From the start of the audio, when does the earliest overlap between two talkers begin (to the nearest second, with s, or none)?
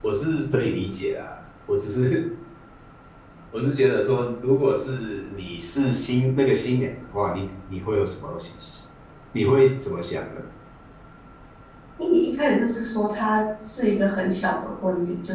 none